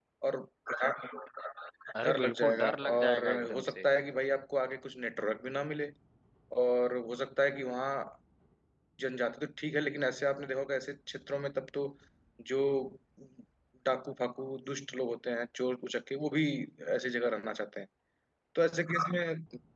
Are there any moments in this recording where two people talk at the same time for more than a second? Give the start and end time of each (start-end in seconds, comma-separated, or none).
2.0-3.9